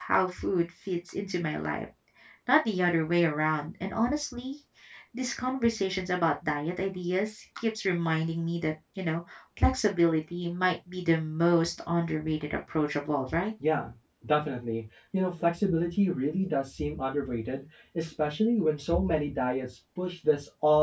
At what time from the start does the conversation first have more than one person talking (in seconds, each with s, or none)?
none